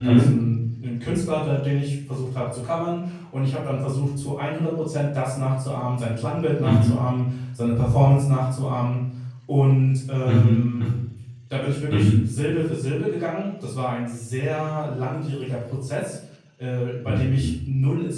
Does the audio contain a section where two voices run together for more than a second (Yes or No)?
No